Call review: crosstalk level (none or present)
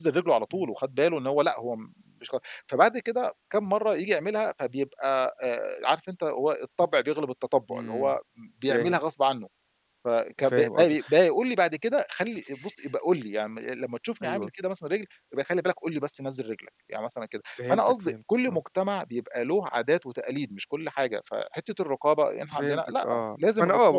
present